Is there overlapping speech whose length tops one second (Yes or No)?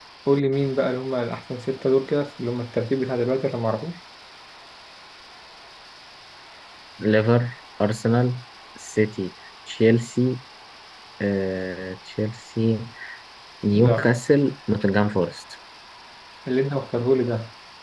No